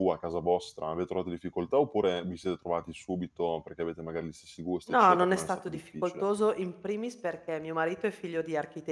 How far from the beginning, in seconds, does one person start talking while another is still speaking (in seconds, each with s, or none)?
4.9 s